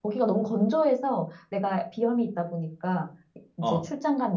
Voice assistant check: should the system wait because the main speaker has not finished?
Yes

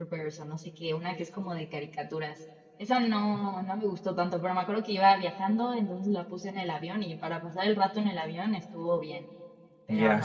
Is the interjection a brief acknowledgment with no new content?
No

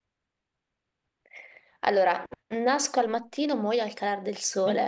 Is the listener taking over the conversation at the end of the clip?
Yes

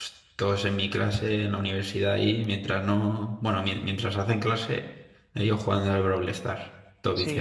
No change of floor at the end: No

